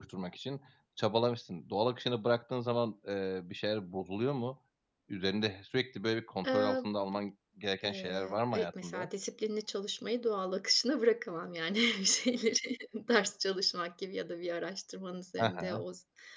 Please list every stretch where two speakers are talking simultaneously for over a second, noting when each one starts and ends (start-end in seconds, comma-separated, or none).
7.8-9.1